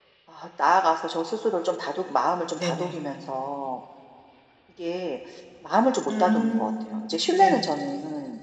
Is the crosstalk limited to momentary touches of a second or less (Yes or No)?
No